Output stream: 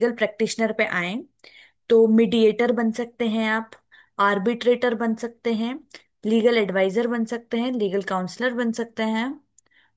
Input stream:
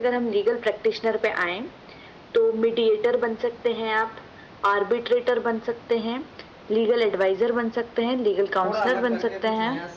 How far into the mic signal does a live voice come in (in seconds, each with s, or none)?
8.6 s